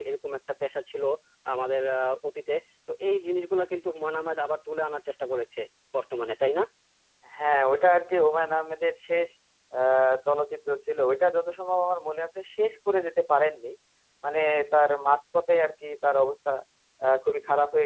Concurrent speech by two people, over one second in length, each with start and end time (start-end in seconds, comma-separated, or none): none